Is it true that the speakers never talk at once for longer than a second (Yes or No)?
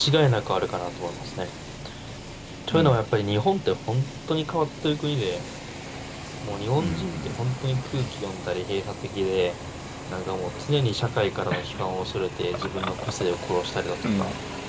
No